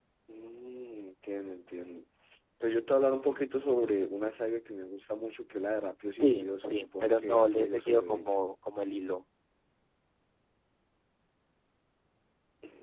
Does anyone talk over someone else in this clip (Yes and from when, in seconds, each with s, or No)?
Yes, from 6.2 s